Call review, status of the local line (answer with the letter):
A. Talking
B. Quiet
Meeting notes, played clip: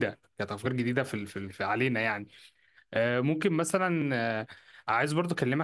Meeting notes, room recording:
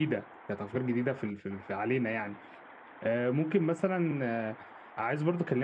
B